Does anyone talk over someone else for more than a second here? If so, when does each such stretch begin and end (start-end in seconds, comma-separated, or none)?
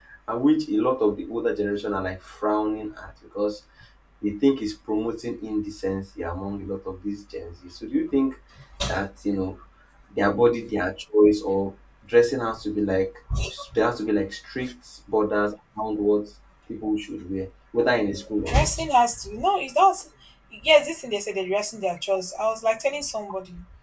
none